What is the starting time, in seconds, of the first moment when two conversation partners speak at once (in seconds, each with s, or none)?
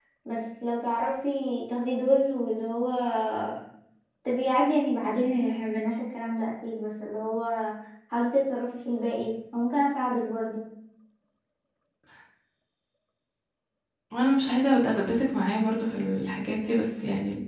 none